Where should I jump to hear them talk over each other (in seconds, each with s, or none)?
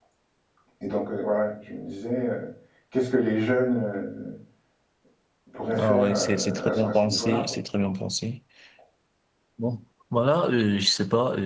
5.8 s